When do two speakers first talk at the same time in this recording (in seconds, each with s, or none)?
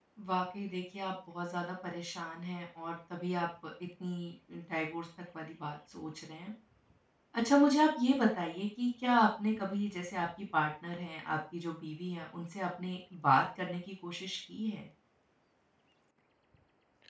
none